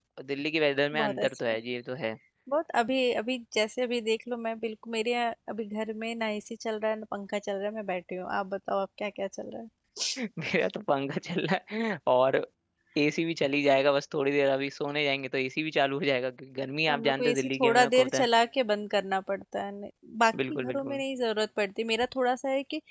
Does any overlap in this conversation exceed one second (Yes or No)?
Yes